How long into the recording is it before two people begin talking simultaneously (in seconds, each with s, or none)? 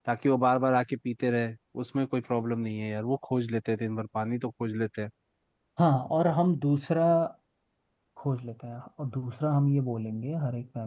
none